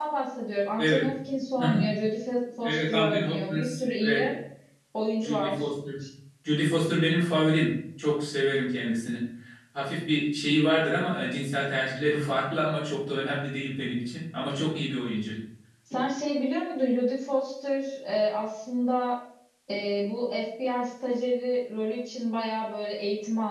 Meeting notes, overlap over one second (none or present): present